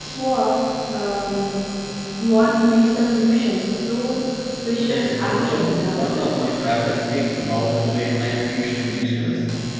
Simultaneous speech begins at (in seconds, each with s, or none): 4.8 s